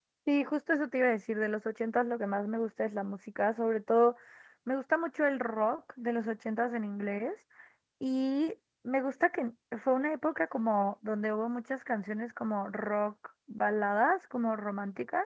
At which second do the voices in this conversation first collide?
none

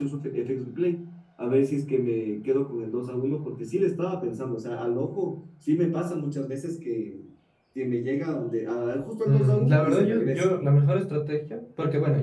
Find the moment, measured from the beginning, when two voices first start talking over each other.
9.2 s

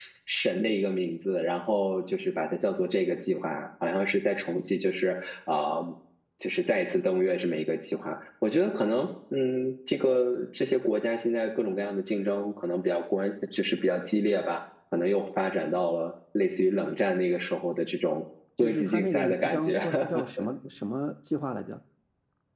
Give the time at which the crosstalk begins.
18.6 s

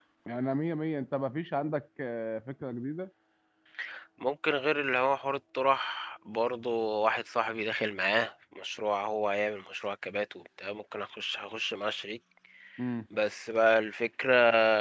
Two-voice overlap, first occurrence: none

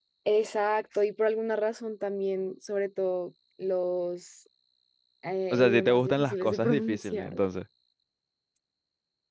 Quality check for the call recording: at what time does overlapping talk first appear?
5.5 s

